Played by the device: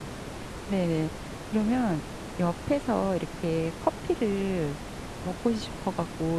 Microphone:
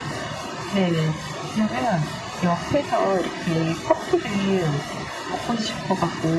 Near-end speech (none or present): none